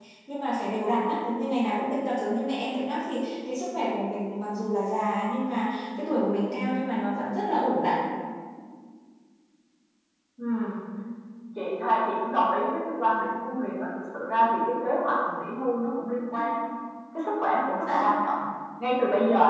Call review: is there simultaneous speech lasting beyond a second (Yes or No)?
No